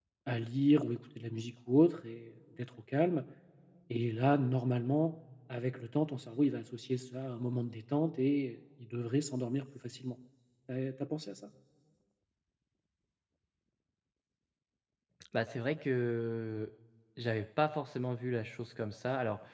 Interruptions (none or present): none